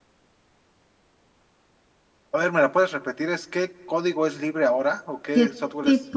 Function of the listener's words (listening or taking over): taking over